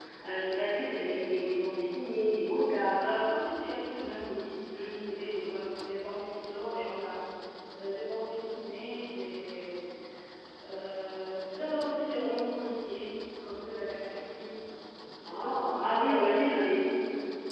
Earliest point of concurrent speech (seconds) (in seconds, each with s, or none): 15.2 s